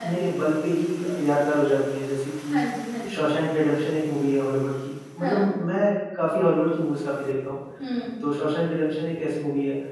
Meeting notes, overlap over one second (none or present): none